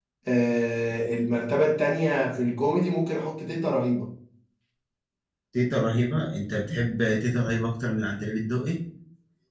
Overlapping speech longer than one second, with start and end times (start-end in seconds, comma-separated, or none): none